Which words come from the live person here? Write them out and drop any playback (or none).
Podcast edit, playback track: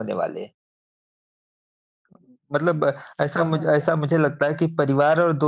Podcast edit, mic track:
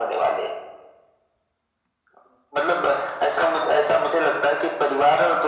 none